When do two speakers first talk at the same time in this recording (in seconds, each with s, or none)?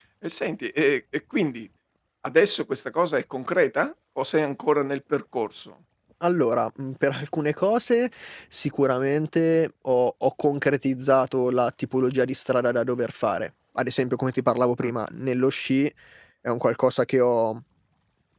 none